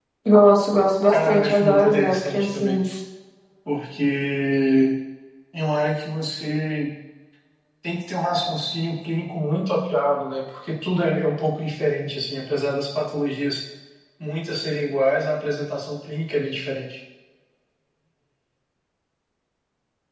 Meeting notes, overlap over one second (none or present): present